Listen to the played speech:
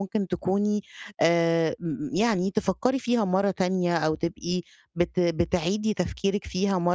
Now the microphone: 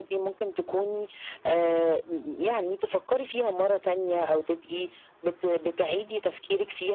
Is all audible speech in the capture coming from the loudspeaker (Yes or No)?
Yes